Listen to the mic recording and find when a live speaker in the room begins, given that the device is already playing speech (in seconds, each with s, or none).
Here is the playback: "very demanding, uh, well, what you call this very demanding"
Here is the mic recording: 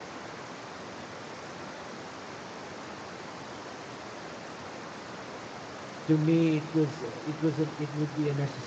6.0 s